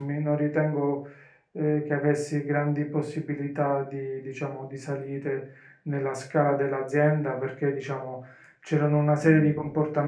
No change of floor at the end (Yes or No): Yes